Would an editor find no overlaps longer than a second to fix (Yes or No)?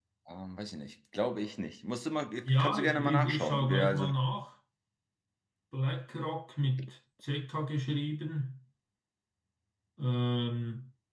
No